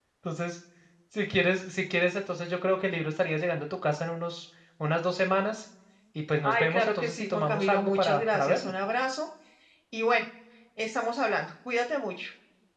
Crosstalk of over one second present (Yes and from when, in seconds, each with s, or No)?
Yes, from 6.4 s